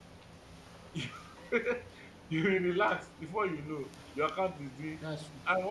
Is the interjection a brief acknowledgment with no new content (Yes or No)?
Yes